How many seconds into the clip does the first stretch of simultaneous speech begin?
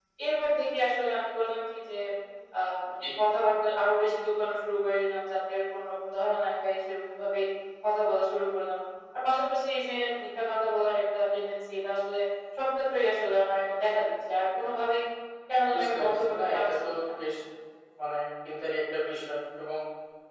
15.7 s

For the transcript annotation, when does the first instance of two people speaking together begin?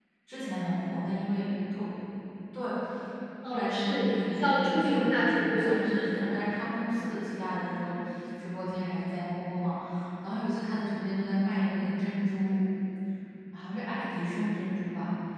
3.4 s

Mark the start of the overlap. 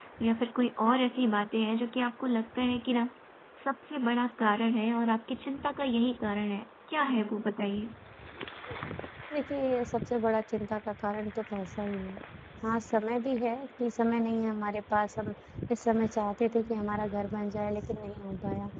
none

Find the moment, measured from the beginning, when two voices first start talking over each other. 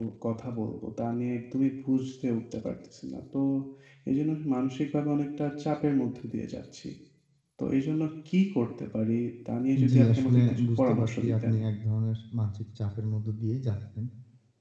9.8 s

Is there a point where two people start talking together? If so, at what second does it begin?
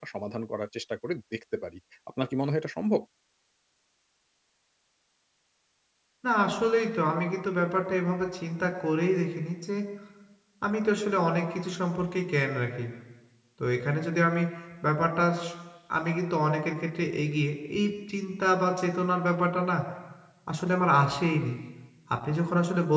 none

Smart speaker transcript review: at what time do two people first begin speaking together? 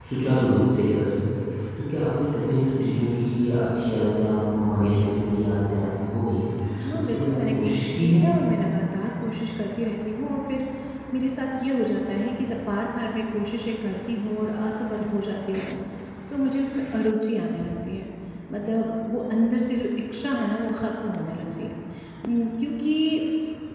6.9 s

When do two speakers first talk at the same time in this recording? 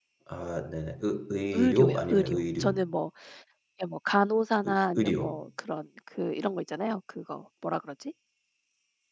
1.5 s

